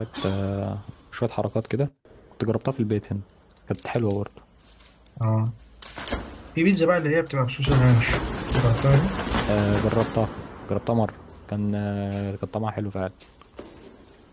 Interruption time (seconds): none

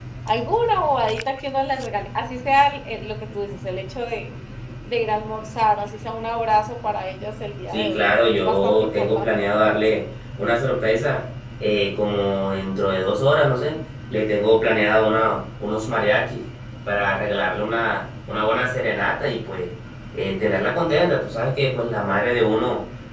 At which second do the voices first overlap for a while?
7.7 s

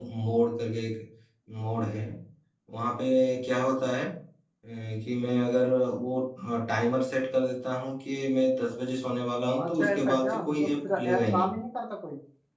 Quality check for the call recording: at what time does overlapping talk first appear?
9.6 s

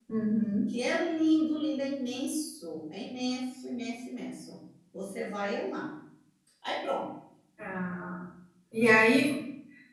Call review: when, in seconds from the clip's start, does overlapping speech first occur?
none

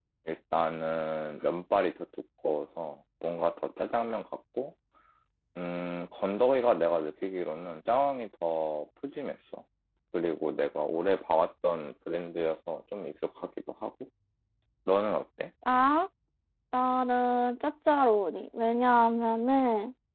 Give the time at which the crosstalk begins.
none

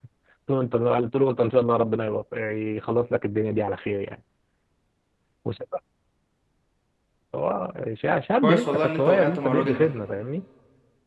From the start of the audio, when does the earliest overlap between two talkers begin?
8.4 s

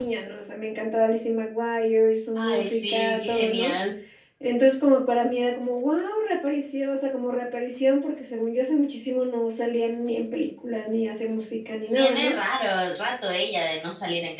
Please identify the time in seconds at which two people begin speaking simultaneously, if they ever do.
2.4 s

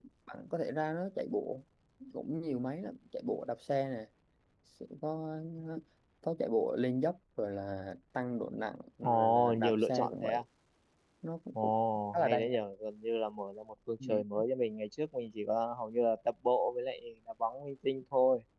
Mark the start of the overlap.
9.0 s

